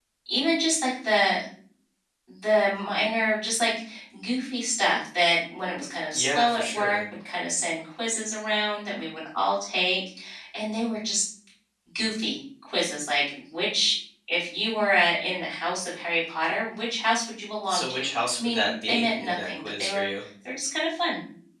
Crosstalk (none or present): present